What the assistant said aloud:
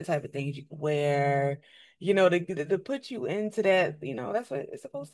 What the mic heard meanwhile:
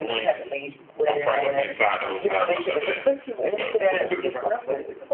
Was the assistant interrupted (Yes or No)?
Yes